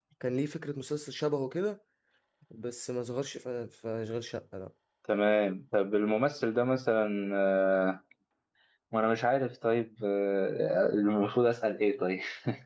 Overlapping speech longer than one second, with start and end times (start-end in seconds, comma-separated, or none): none